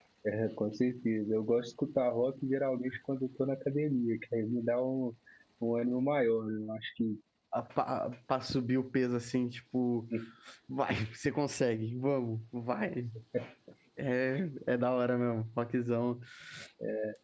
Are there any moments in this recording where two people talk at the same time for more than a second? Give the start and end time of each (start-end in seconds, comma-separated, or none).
none